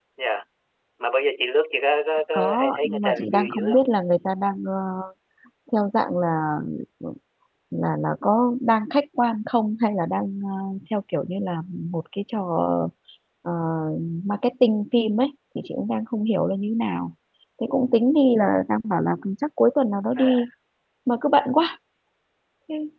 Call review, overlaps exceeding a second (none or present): present